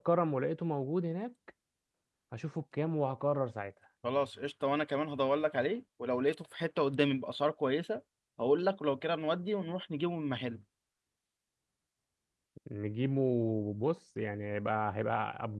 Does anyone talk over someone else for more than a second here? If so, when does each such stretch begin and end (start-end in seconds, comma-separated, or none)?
none